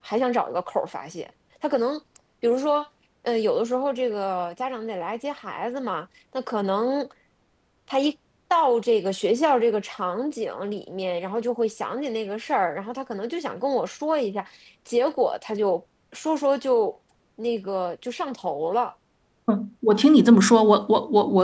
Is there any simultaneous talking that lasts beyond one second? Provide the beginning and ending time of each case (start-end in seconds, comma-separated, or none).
none